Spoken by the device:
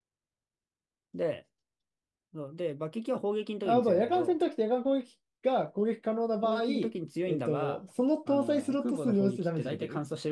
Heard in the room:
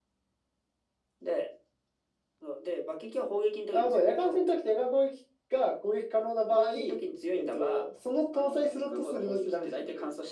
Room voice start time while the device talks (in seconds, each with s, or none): none